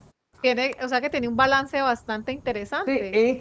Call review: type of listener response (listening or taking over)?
taking over